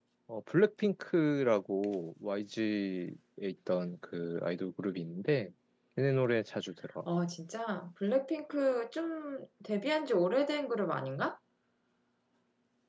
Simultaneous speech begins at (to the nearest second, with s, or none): none